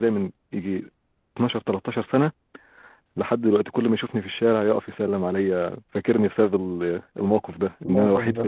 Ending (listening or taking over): listening